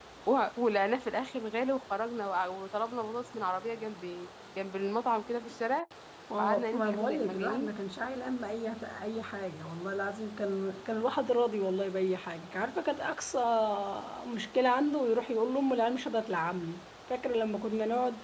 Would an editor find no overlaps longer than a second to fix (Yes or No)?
No